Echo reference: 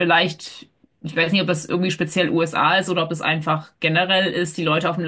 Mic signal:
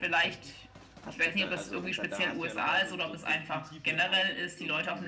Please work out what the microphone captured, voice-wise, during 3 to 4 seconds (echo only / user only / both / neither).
both